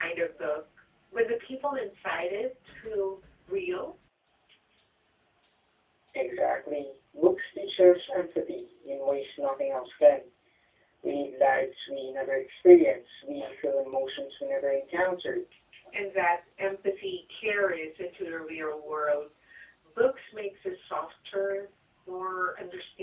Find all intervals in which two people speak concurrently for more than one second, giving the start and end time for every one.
none

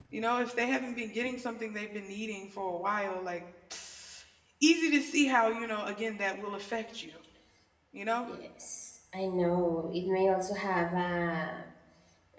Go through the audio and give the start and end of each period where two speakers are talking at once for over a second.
none

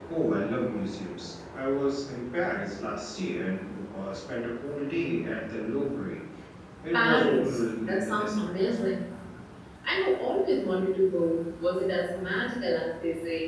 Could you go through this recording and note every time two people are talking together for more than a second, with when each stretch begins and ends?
6.9-9.0

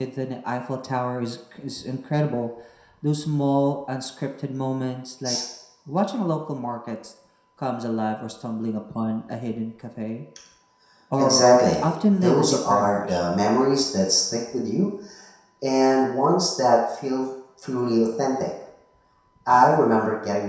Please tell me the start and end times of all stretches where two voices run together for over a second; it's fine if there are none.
11.8-13.3

